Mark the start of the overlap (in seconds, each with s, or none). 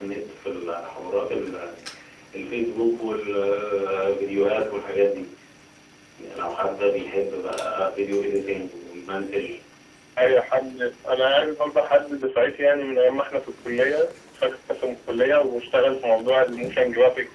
none